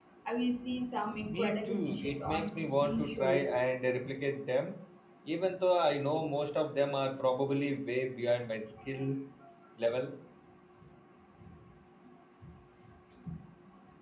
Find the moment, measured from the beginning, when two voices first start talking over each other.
1.3 s

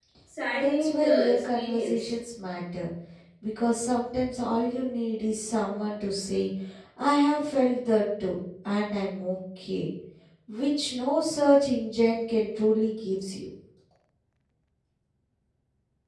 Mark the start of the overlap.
0.6 s

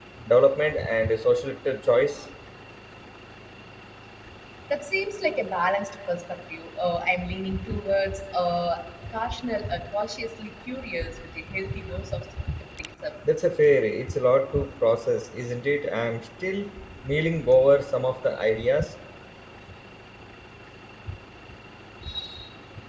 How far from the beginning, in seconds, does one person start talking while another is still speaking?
none

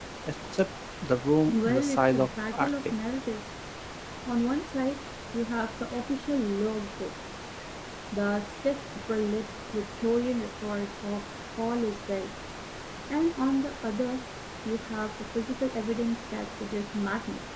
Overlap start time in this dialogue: 1.5 s

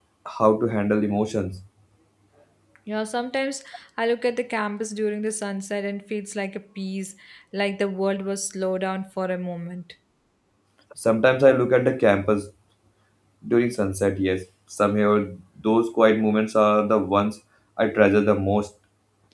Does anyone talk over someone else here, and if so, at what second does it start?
none

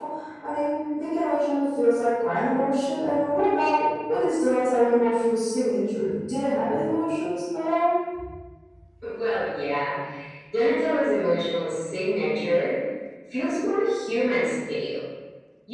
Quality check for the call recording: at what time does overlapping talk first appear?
none

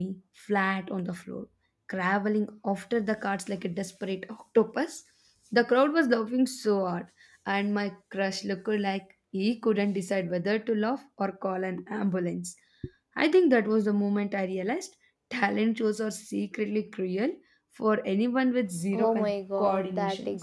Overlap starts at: 18.9 s

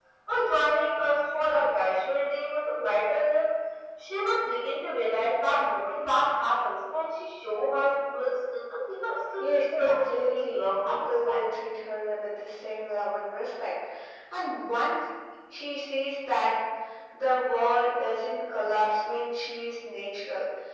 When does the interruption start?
9.4 s

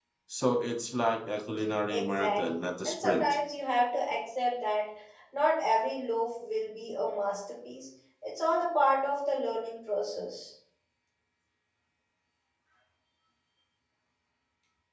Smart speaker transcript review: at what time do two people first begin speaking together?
1.9 s

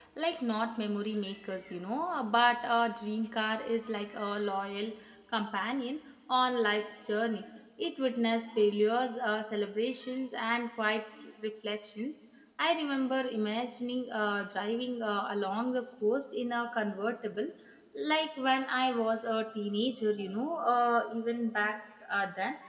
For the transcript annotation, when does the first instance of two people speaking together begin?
none

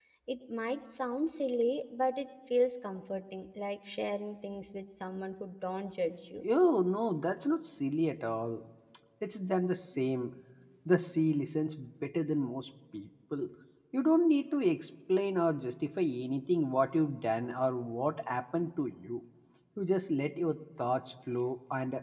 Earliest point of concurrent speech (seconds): none

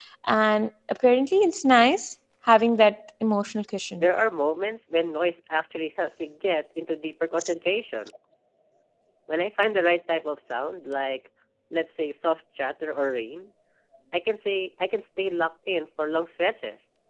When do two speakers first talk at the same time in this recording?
none

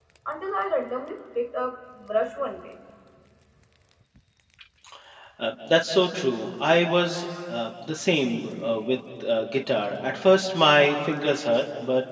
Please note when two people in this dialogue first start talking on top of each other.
none

